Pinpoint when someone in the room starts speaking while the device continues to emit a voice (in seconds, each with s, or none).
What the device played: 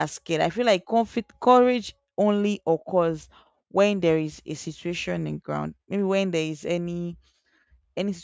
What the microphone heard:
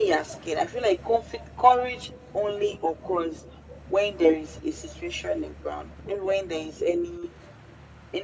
none